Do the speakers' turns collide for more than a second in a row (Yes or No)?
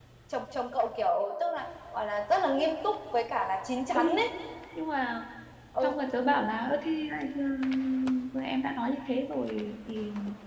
No